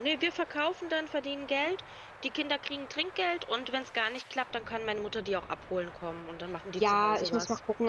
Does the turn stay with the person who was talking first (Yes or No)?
No